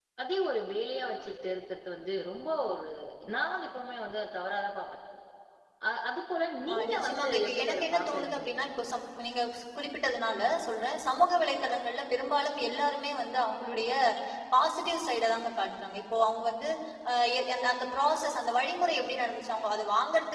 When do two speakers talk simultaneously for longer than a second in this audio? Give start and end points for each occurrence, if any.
6.7-8.4

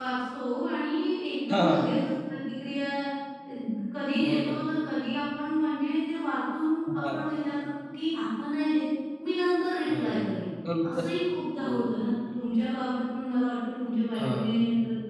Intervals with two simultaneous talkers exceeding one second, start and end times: none

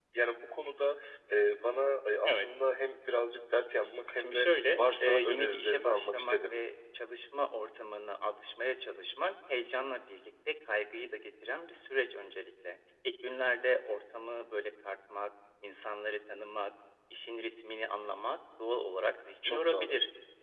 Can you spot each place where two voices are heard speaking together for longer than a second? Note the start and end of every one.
4.2-6.5

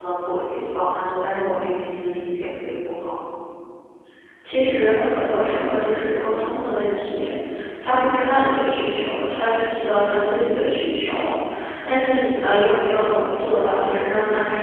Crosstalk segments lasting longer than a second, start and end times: none

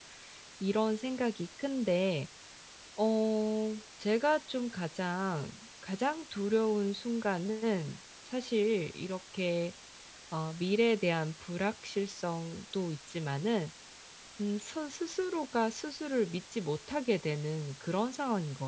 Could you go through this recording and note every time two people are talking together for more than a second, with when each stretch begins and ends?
none

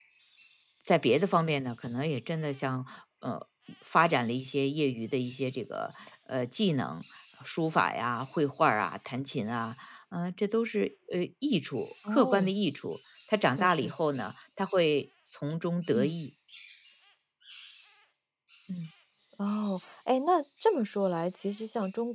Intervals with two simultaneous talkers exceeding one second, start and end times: none

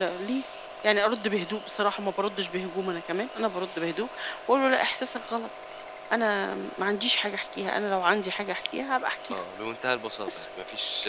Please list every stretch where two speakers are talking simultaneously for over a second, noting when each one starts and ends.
none

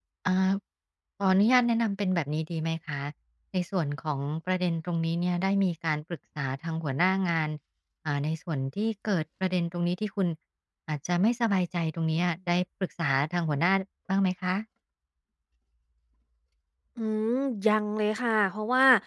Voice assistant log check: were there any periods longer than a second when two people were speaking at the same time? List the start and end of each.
none

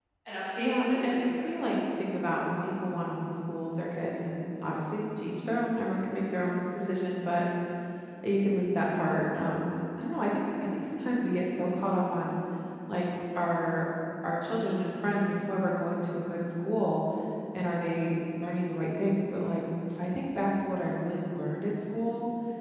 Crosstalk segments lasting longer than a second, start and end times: 0.6-1.8

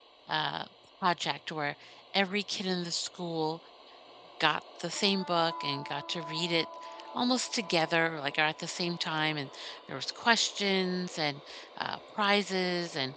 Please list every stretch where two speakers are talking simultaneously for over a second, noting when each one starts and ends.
none

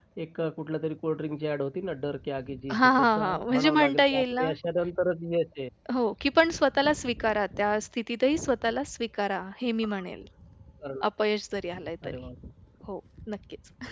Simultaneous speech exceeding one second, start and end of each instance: 2.8-4.5

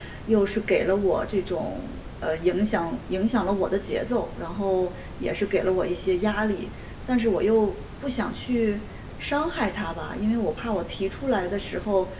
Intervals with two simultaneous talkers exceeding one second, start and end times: none

